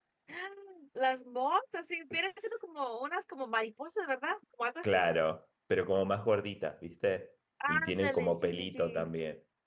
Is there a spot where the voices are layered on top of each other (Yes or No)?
Yes